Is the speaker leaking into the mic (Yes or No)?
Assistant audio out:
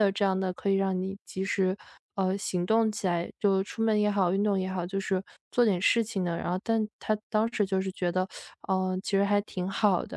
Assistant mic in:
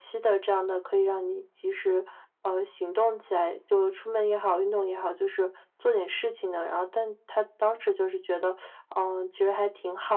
Yes